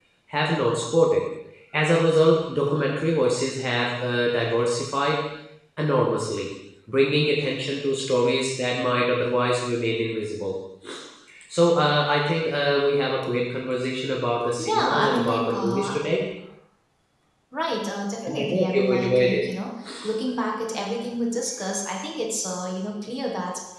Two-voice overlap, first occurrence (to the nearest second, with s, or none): 15 s